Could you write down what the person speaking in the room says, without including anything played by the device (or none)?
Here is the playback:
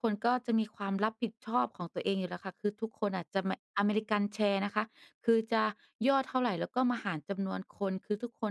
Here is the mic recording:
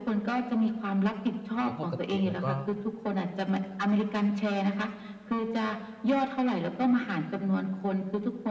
อา เพราะปกติมันก็